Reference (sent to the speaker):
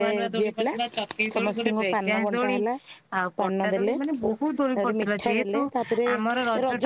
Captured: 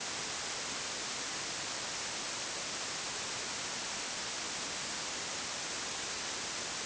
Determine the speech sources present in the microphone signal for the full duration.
neither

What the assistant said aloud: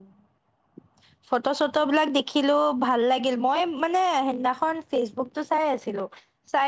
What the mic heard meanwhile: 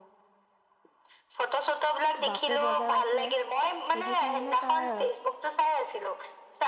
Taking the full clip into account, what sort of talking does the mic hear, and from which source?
both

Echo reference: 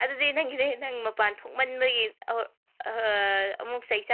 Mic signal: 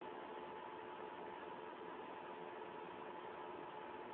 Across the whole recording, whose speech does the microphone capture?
neither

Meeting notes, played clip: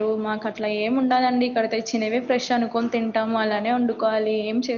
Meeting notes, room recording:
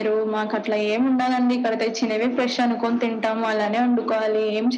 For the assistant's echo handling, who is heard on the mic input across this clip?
echo only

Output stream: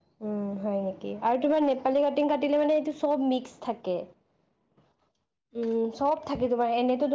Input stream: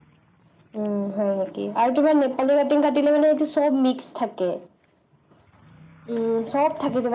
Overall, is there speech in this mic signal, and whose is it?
echo only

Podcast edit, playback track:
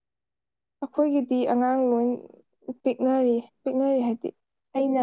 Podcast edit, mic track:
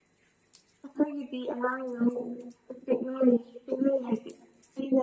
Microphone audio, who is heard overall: echo only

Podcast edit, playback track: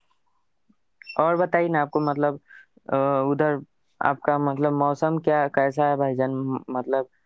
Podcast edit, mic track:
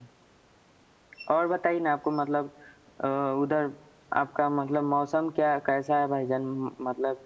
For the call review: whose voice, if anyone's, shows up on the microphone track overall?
echo only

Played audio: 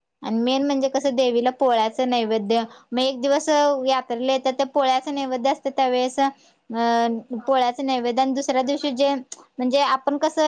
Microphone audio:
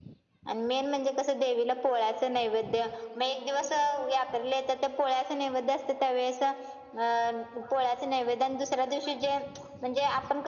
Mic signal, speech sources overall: echo only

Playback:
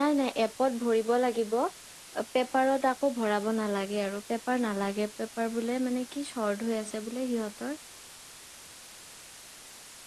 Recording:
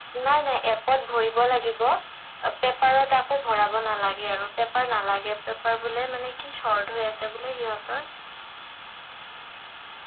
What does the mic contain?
echo only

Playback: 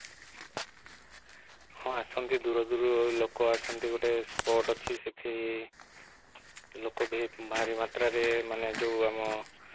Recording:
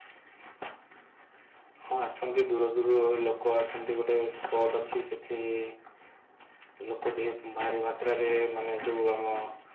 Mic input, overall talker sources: echo only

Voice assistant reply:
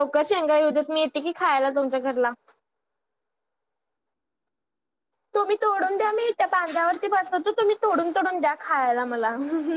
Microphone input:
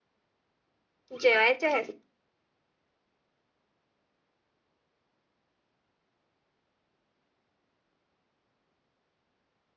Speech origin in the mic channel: user only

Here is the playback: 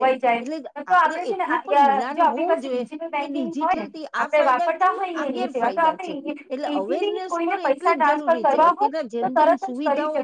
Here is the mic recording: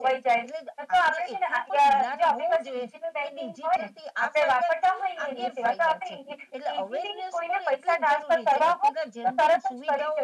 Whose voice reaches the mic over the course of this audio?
echo only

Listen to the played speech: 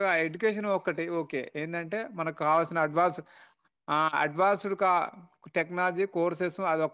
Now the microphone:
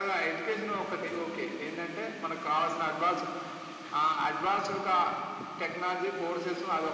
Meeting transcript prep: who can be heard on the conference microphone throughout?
echo only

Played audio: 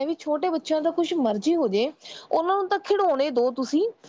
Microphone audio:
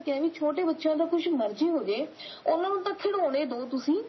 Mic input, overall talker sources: echo only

